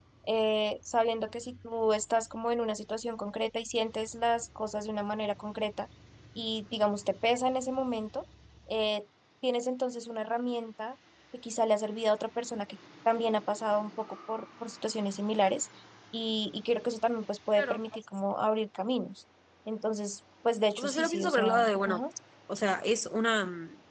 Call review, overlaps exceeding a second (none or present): present